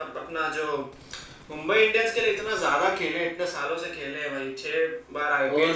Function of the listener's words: taking over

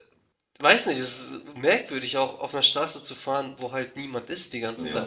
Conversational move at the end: taking over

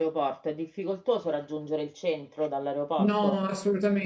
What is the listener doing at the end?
taking over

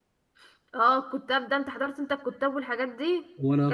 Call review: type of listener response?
listening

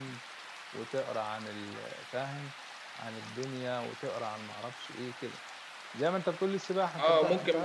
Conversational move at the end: taking over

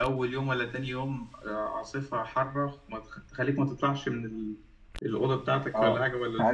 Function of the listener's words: taking over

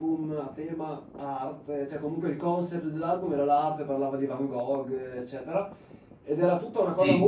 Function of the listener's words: listening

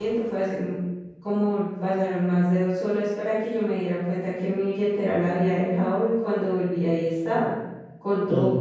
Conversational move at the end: listening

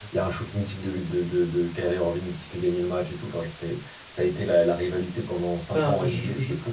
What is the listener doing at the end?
taking over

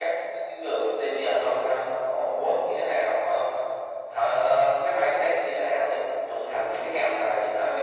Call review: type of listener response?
taking over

